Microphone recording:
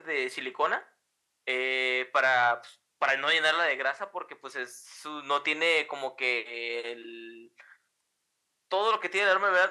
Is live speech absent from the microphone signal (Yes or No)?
Yes